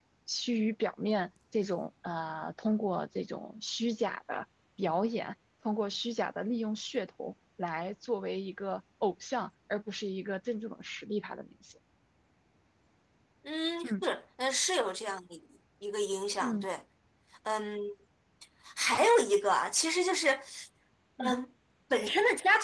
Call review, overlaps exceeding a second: none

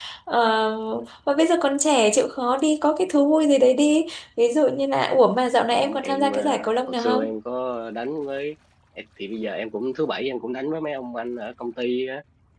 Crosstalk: present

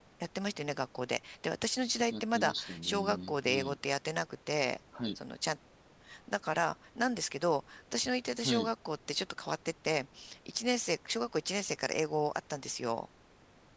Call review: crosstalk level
present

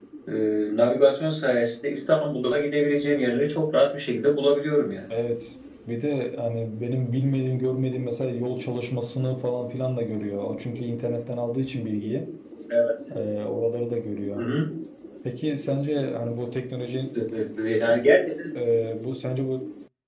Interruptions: none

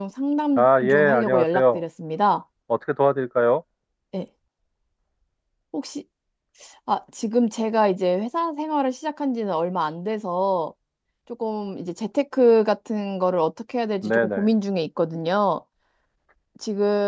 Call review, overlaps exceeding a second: present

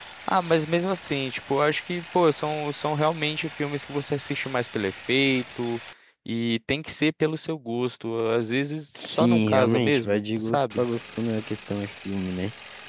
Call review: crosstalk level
present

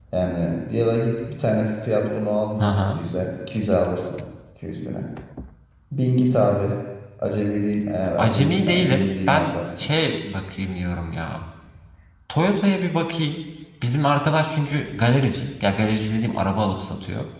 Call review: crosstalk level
present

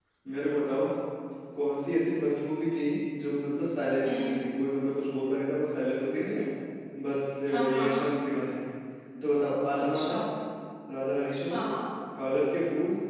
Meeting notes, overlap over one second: none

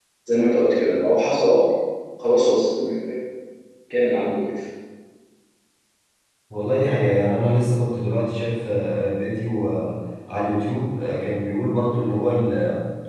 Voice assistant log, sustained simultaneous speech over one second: none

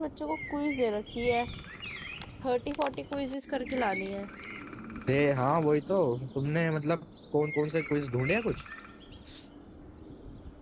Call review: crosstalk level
none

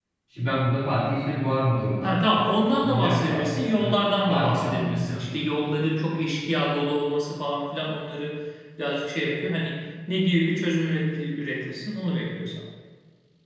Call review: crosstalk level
present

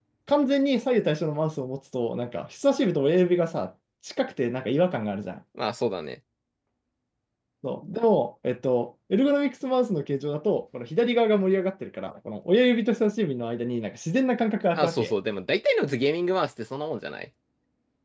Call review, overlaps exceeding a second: none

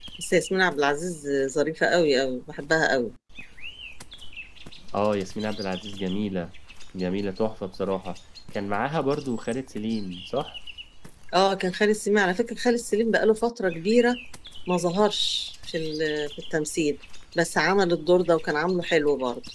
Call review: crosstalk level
none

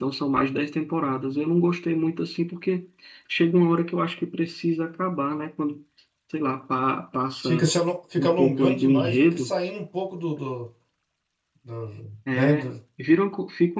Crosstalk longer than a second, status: present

